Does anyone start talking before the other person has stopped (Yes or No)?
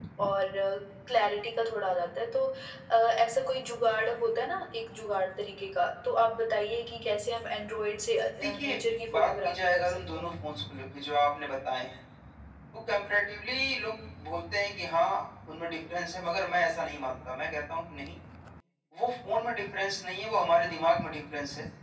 Yes